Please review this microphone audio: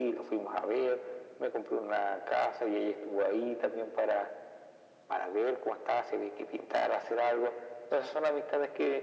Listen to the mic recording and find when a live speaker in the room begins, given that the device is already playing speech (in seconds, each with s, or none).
none